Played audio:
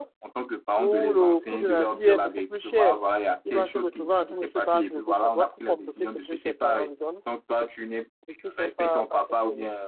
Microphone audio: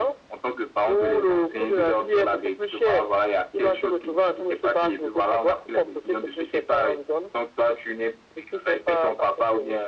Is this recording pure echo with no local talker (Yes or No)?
Yes